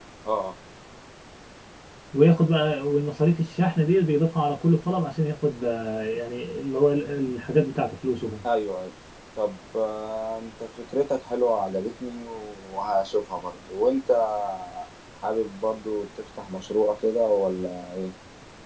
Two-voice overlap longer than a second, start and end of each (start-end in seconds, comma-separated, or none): none